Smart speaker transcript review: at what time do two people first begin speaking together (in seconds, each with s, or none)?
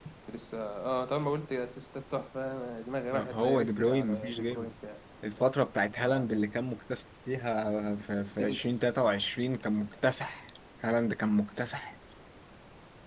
3.1 s